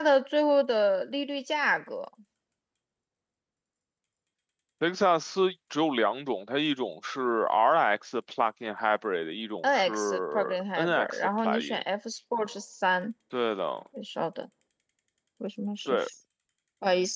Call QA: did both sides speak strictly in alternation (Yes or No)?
No